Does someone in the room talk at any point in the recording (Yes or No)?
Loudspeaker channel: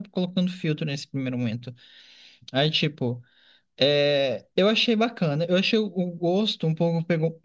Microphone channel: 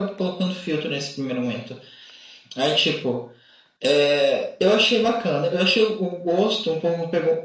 No